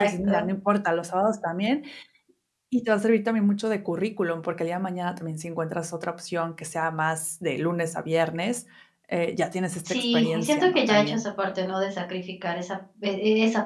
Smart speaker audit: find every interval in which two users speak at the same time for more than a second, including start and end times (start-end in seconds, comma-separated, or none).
9.9-11.2